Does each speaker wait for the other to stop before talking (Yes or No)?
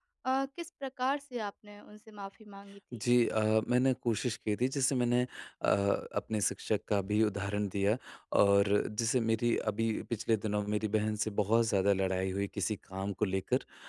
Yes